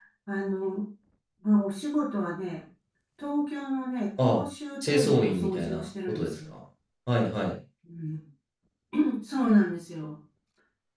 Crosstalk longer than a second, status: present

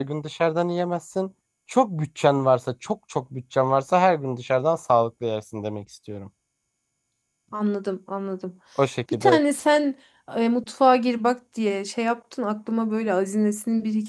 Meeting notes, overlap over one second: none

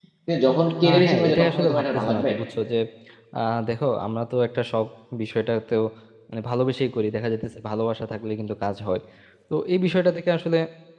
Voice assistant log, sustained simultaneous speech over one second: present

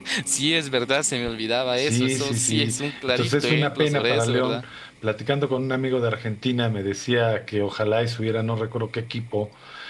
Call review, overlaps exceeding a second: present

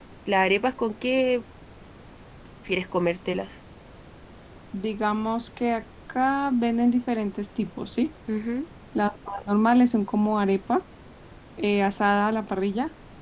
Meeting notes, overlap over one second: none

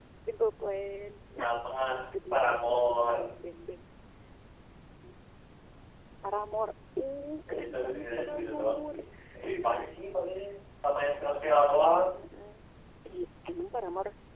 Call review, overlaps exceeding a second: present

